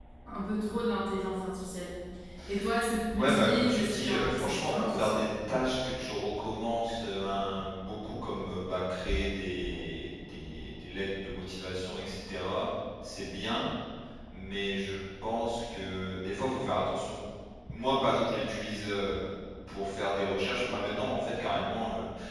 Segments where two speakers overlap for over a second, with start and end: 3.2-5.2

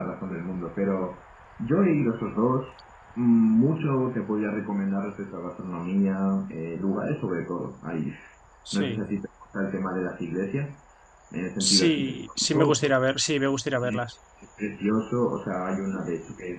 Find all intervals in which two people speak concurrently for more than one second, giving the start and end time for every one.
11.6-12.9

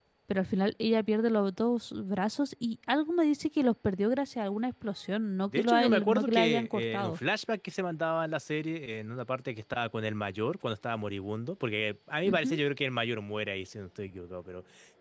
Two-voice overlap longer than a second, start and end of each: 5.5-7.2

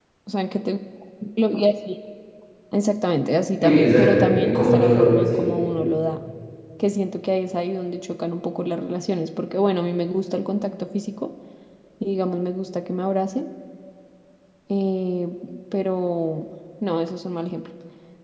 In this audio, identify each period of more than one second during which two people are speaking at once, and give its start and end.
3.6-5.5

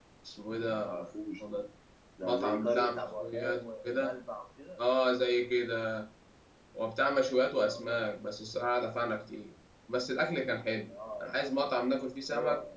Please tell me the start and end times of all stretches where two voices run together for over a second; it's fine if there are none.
2.2-4.2

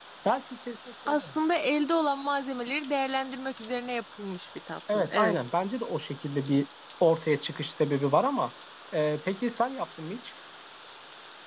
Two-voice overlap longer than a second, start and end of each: none

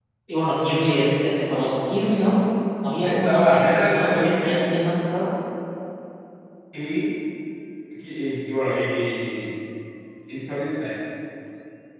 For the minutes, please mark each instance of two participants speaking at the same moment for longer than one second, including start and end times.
3.0-4.6

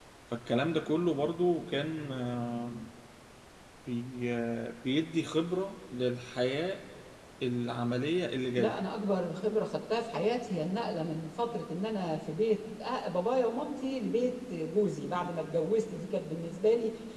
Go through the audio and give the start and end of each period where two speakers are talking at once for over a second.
none

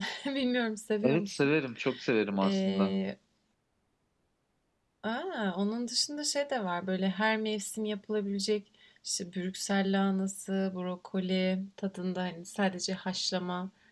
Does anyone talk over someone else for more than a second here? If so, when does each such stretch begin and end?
none

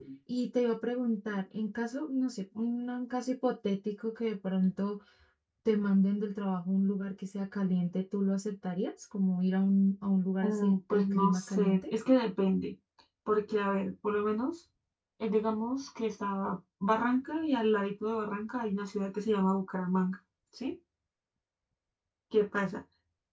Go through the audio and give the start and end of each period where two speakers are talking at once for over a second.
10.4-11.8

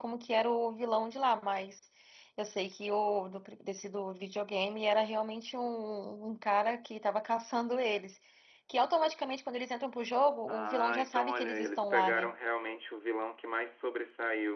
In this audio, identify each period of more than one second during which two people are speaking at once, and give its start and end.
10.5-12.3

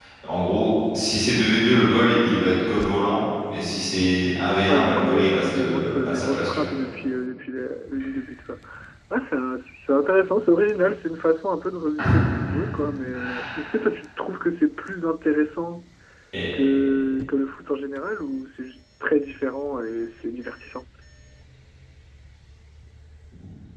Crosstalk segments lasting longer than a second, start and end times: 4.7-6.7

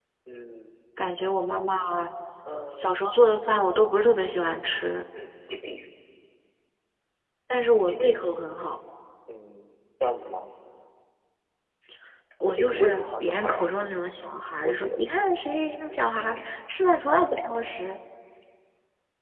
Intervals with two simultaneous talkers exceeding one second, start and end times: 12.5-13.7

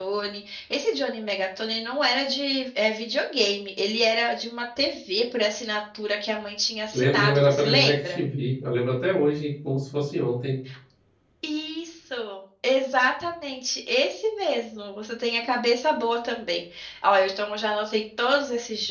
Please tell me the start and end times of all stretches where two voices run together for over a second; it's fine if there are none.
6.9-8.2

